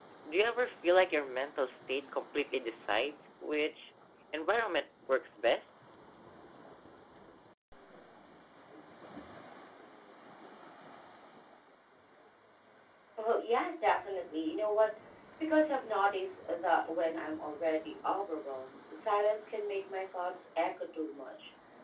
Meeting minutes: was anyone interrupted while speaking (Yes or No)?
No